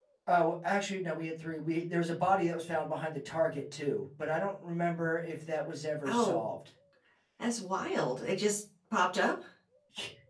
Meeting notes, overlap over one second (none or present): none